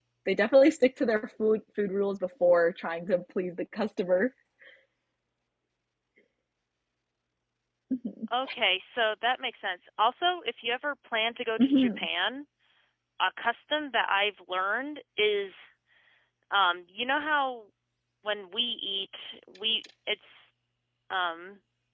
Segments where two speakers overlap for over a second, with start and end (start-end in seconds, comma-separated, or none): none